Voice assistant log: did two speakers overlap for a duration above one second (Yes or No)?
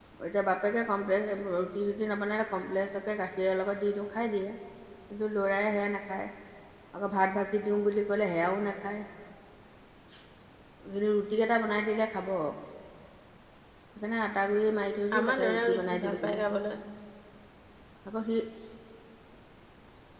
Yes